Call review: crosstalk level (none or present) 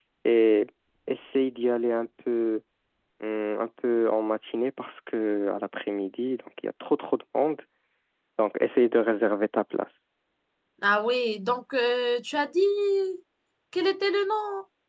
none